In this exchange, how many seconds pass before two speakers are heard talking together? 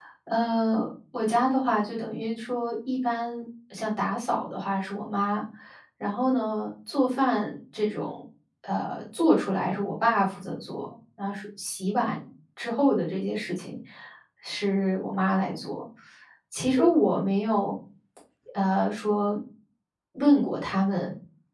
none

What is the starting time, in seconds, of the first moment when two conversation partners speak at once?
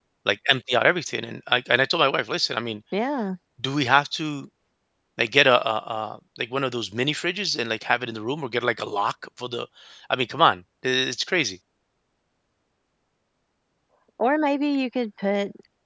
none

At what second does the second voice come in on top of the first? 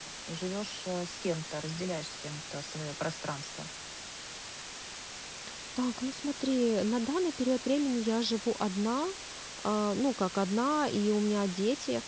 none

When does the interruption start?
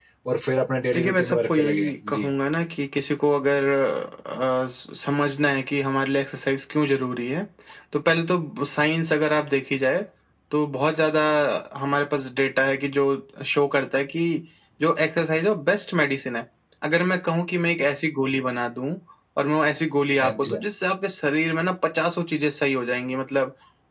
1 s

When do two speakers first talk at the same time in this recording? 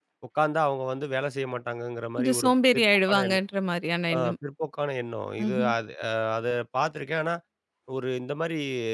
2 s

